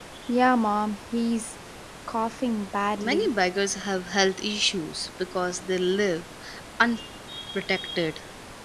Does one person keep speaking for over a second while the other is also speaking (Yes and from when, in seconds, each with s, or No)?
No